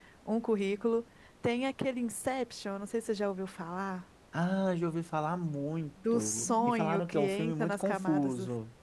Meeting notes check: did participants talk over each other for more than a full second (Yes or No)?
Yes